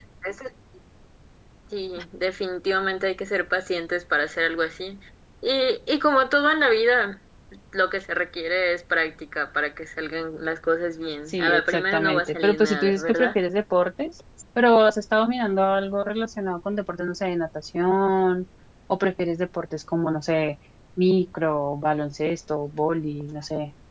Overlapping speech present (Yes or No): Yes